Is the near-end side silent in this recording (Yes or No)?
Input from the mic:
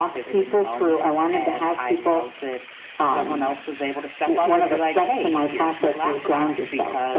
Yes